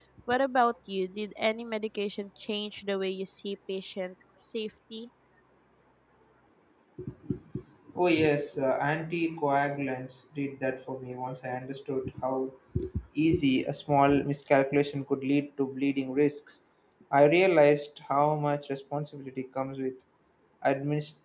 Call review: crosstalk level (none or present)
none